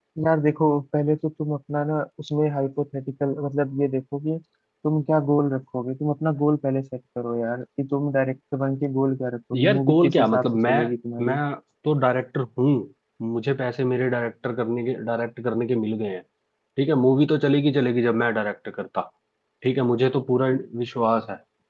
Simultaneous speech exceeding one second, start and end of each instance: 9.6-10.8

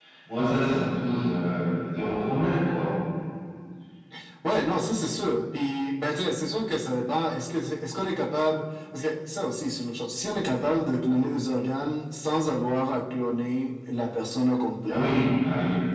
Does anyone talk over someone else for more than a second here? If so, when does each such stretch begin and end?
none

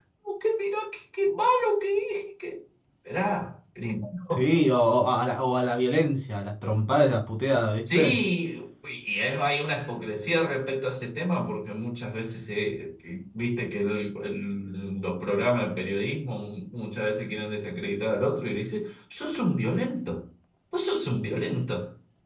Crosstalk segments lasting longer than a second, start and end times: none

